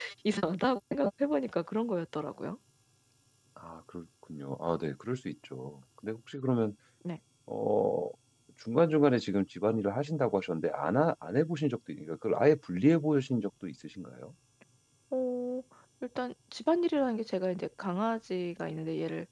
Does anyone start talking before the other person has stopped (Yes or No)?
No